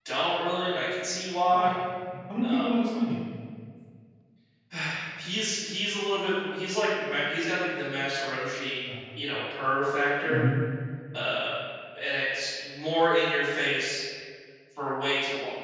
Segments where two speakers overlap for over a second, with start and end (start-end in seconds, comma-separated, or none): none